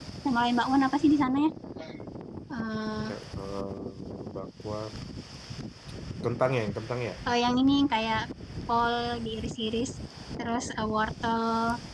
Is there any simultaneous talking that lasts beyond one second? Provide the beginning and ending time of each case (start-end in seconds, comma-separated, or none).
none